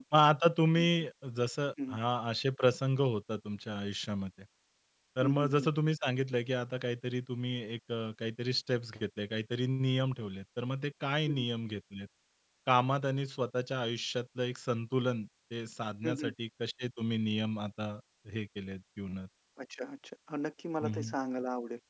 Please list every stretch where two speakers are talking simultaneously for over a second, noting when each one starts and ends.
none

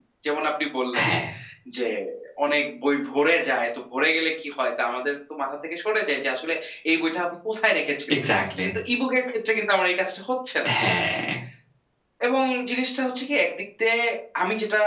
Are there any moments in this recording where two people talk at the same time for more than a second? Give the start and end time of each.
none

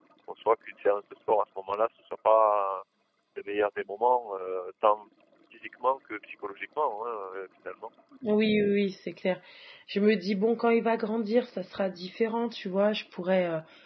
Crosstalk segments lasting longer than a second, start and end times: none

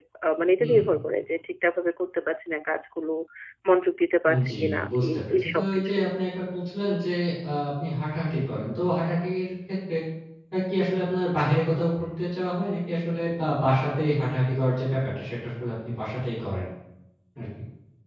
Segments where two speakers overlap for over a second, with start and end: 4.3-5.9

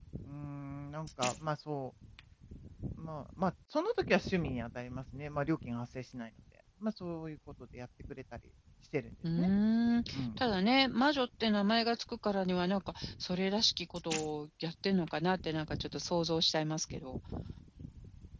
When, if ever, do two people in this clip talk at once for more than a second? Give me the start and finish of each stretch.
none

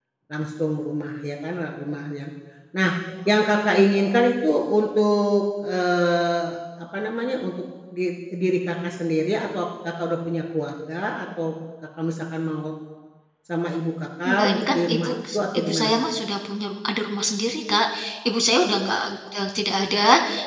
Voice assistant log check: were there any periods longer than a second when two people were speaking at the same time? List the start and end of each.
14.2-15.9

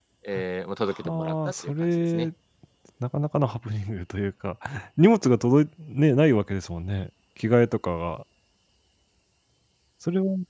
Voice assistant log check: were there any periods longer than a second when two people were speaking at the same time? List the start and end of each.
1.0-2.3

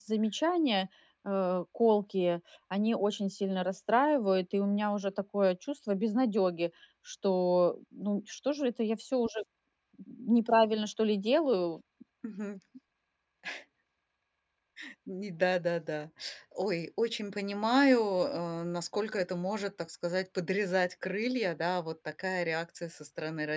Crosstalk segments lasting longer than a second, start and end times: none

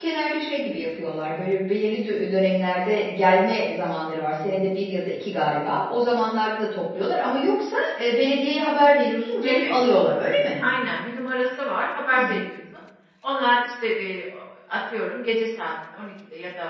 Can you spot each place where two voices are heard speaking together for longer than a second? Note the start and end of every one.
none

